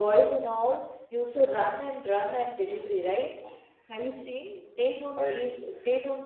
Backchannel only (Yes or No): Yes